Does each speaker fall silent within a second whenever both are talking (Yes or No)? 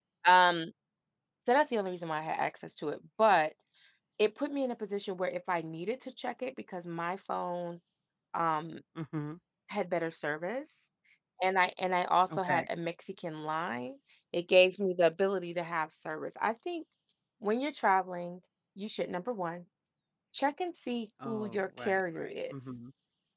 No